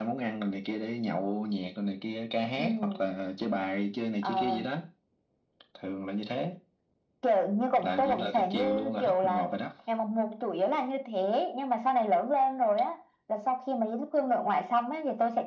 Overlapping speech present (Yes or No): Yes